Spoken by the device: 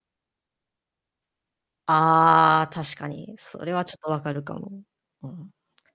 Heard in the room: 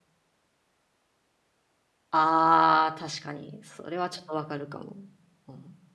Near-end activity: none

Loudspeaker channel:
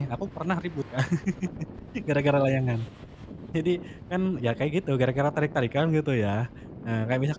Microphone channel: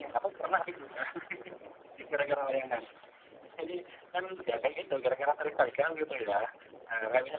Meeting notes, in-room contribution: none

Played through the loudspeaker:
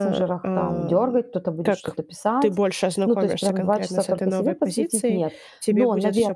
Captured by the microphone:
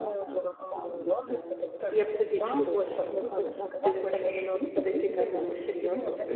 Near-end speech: present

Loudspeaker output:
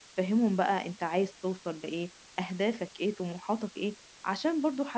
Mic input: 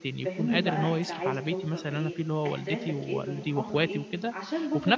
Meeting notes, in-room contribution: present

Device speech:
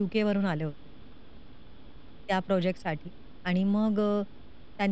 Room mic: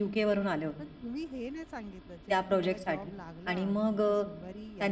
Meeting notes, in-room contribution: present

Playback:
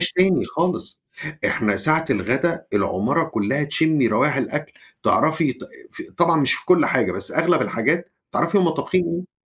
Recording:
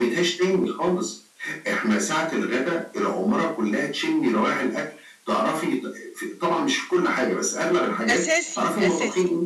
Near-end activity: present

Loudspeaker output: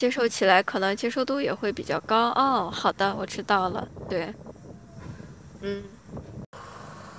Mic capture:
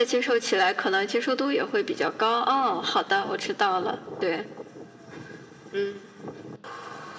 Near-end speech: none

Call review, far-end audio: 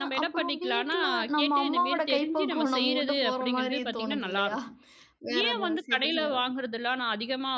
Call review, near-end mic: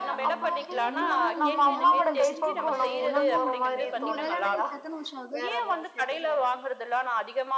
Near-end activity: present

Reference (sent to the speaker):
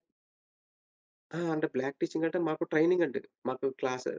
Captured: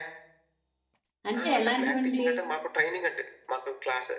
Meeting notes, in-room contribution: present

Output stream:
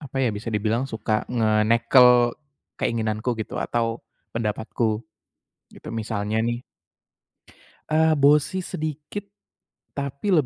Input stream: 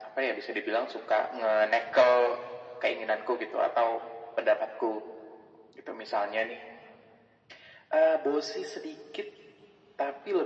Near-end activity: none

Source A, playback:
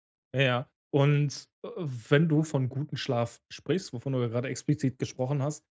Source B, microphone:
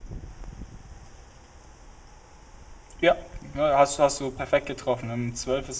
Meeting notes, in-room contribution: present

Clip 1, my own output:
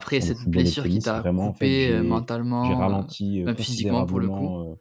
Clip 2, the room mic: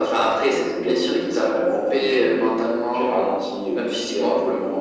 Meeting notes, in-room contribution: none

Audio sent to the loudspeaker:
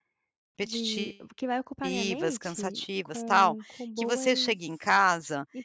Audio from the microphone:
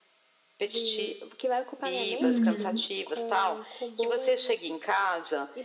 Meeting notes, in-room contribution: present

